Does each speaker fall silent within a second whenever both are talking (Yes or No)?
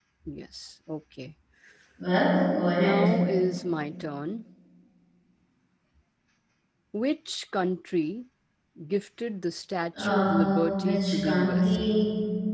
No